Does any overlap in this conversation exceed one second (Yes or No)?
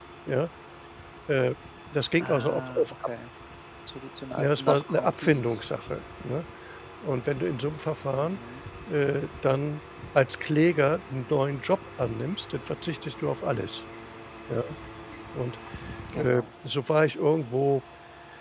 Yes